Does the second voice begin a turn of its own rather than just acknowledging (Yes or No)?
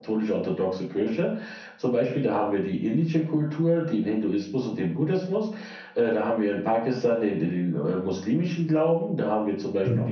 No